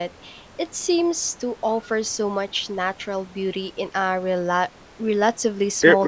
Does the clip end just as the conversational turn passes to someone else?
Yes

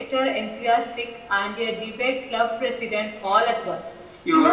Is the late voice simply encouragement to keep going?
No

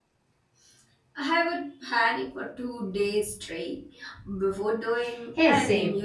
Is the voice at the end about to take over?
Yes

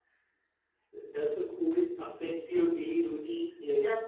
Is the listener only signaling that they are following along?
No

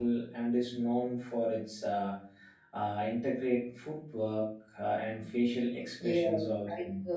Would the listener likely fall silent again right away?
No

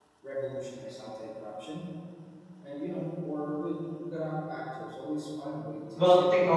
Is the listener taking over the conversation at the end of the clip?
Yes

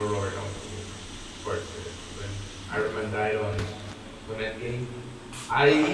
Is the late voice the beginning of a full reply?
No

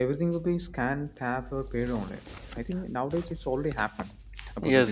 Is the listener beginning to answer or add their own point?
Yes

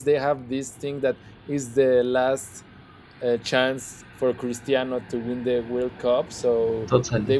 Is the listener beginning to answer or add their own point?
No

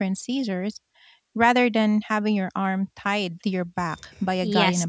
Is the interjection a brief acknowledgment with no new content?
No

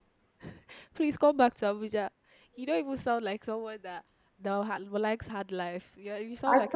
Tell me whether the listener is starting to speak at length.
Yes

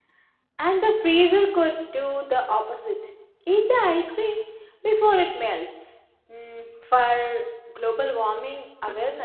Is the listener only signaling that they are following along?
No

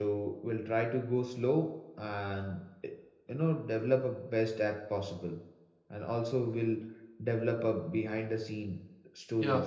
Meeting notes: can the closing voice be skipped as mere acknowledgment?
No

